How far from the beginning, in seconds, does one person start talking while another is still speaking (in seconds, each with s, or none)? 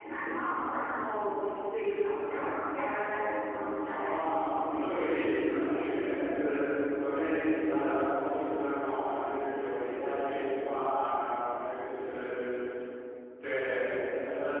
3.8 s